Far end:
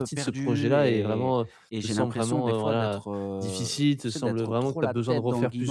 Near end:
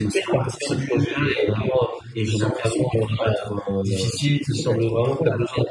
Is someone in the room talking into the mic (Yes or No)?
No